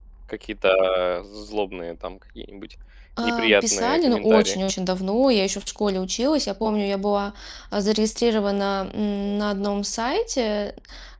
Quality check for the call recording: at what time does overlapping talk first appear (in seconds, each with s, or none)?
3.2 s